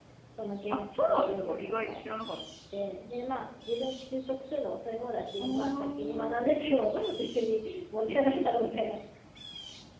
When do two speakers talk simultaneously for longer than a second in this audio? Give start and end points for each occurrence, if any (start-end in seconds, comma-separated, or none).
0.7-2.0, 5.4-6.7